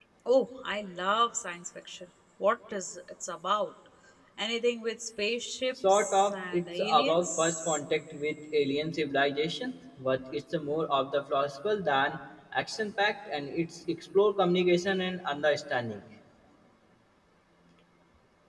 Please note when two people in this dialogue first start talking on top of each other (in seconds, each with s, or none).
5.8 s